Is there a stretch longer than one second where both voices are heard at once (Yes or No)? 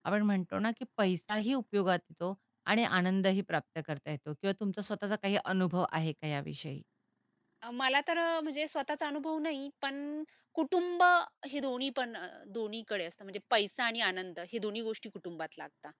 No